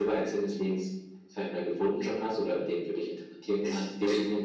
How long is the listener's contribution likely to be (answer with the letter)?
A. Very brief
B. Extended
B